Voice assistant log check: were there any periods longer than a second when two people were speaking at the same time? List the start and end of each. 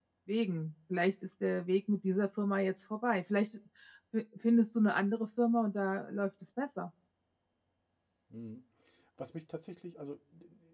none

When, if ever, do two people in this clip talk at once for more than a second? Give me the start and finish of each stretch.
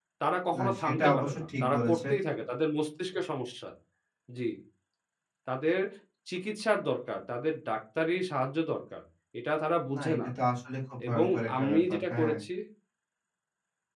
0.6-2.1, 11.1-12.3

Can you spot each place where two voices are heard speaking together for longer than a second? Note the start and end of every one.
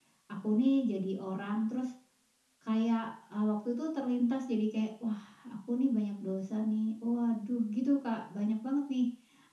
none

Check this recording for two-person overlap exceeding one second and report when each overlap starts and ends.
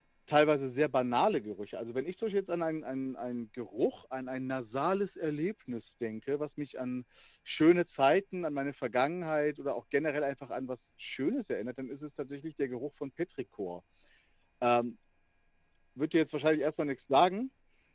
none

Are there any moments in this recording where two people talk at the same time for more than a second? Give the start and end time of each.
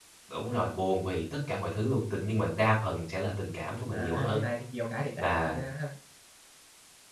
none

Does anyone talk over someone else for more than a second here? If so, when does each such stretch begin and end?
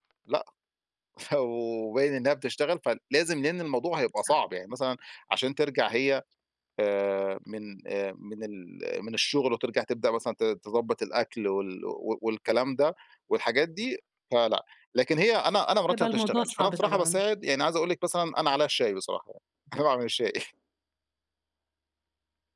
15.9-17.2

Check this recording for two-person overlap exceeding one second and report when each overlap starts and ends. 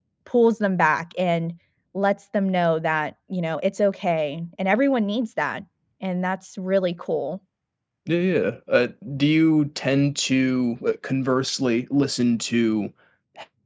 none

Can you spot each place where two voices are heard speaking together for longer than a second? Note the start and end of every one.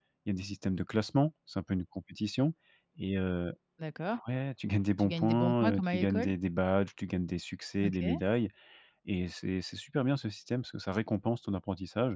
5.0-6.3

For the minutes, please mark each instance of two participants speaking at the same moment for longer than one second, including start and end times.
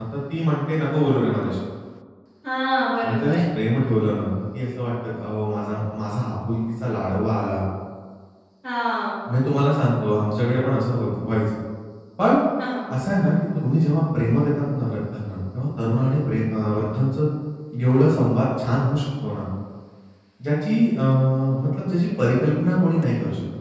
none

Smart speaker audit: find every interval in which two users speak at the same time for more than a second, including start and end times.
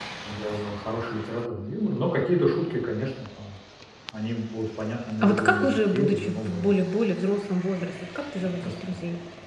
5.2-6.8

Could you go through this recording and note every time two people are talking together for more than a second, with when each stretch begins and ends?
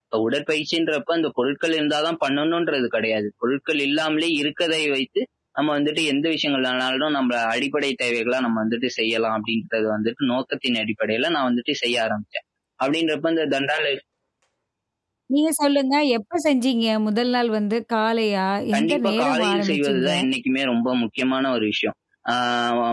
18.8-20.1

